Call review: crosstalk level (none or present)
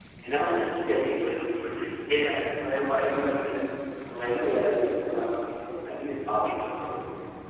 present